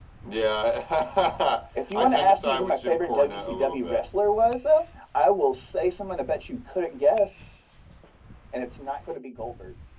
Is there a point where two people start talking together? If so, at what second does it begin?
2 s

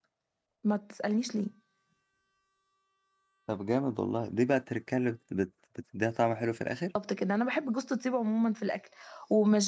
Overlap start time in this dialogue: none

